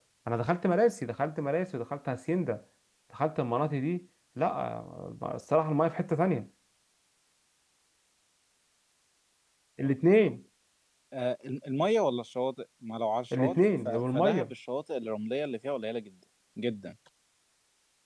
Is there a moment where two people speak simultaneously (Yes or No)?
Yes